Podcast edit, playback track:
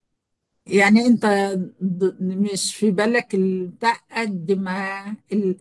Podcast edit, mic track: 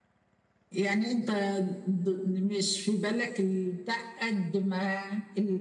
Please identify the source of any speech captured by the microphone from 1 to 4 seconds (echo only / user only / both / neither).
echo only